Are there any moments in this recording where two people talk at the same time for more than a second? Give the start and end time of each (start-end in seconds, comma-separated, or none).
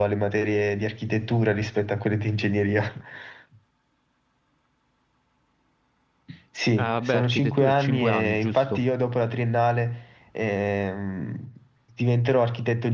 6.8-8.8